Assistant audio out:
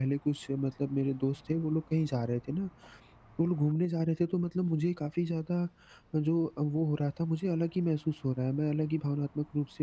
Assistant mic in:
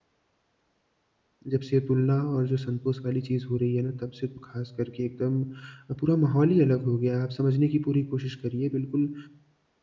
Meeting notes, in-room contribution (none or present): present